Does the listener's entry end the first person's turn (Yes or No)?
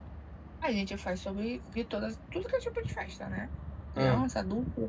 No